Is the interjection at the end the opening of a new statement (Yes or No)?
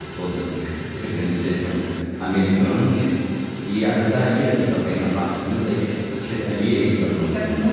Yes